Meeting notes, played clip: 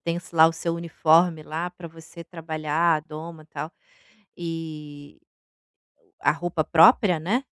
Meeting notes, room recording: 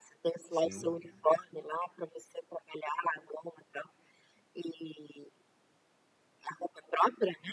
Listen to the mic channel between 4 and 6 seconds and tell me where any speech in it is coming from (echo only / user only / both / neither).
echo only